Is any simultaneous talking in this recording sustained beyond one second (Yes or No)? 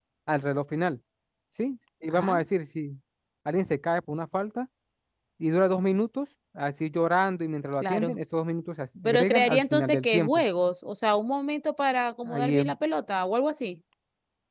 Yes